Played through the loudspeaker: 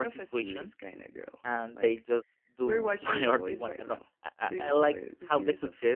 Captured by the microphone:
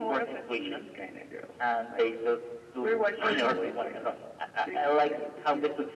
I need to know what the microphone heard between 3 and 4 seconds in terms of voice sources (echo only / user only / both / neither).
both